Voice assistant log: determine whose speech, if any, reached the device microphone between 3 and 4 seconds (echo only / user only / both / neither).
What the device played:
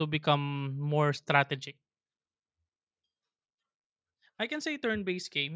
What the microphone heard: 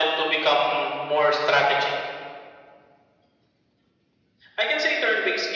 neither